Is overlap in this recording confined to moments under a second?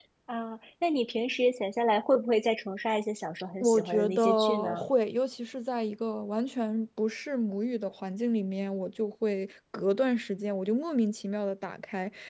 No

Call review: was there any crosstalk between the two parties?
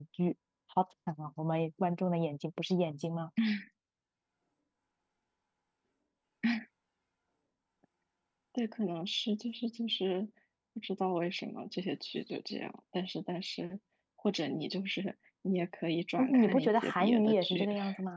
Yes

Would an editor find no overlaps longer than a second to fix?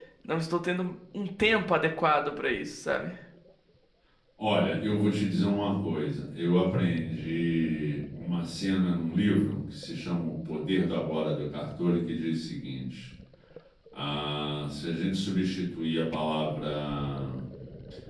Yes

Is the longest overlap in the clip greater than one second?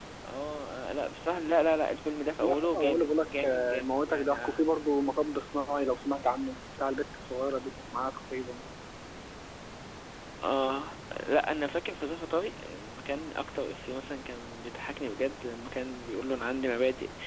Yes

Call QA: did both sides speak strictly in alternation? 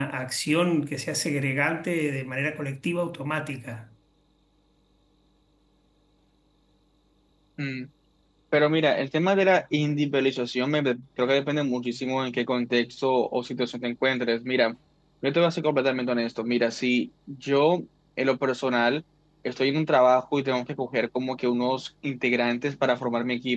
Yes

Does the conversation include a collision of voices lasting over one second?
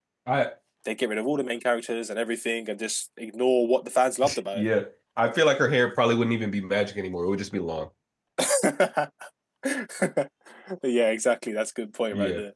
No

